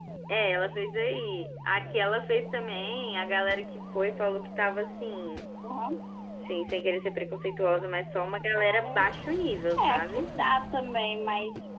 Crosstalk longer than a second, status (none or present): none